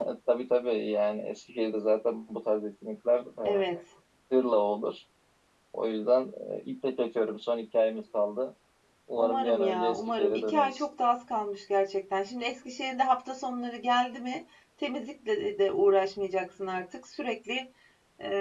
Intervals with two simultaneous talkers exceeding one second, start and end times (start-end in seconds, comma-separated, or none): 9.2-10.8